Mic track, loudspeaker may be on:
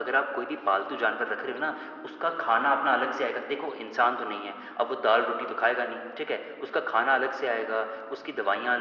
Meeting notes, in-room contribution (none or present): none